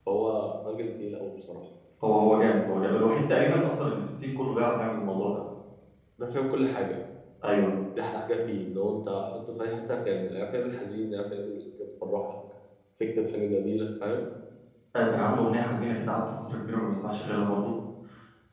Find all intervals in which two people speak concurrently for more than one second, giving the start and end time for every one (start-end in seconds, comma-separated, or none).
none